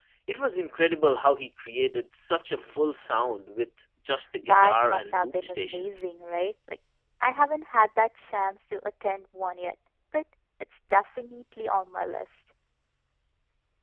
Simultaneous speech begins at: 4.4 s

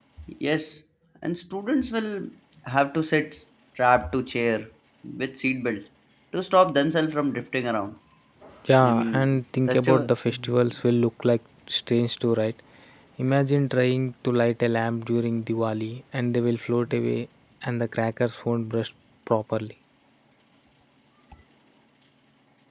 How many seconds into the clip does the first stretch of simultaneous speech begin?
8.8 s

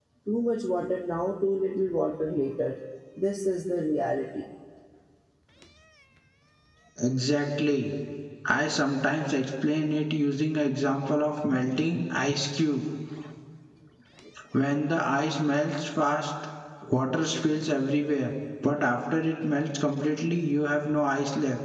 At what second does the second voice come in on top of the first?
none

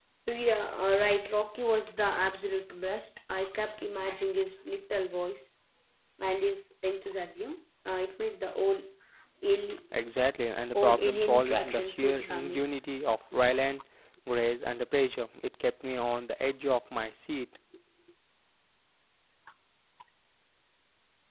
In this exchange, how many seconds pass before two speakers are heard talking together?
10.7 s

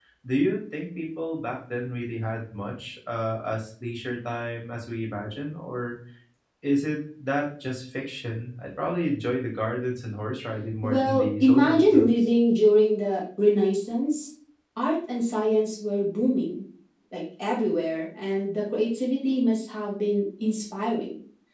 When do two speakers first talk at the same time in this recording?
10.8 s

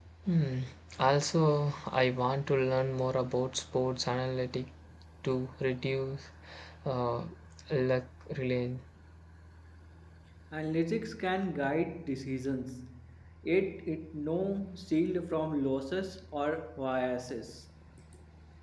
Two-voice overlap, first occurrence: none

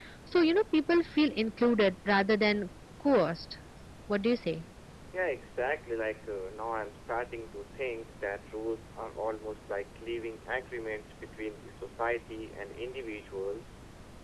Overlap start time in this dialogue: none

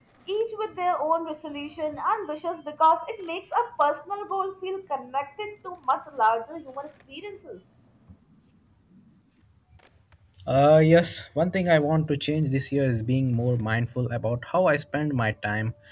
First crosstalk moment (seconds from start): none

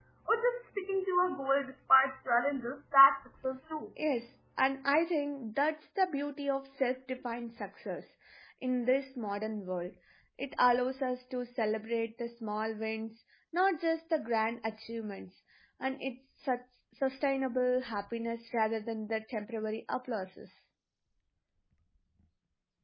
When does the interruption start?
none

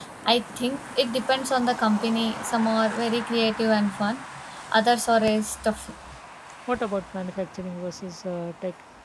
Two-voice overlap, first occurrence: none

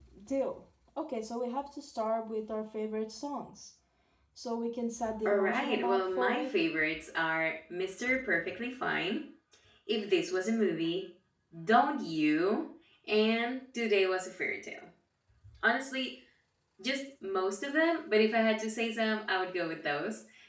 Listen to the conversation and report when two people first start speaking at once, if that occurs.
5.2 s

